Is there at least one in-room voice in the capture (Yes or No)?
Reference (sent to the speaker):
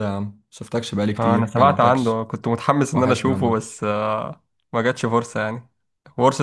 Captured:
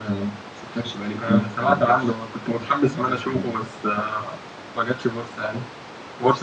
No